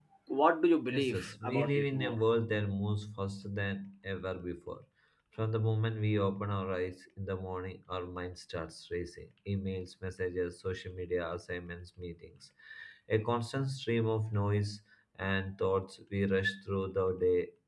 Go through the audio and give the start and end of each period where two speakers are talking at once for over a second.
0.9-2.2

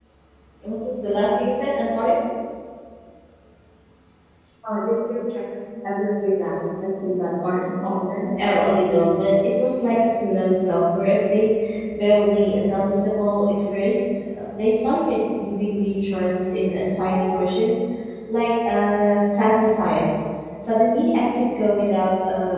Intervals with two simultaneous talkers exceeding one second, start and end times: none

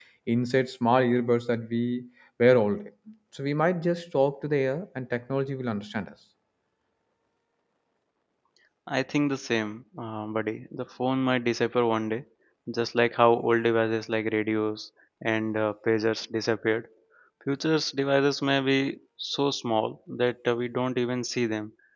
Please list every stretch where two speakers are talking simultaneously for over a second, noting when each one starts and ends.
none

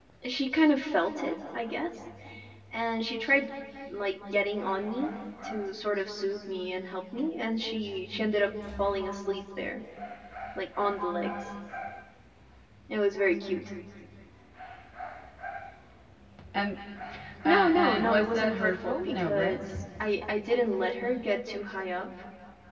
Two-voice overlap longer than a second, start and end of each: 17.4-19.7

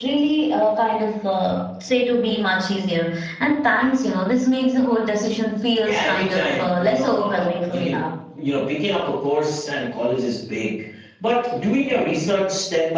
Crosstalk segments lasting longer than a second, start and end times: 5.8-8.0

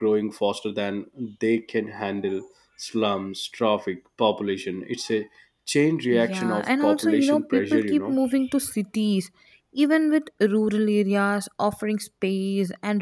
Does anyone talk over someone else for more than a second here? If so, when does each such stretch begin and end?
6.1-8.2

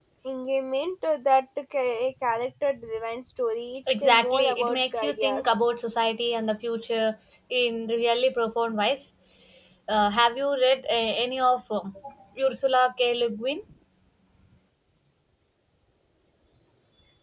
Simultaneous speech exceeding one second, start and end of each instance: 3.9-5.6

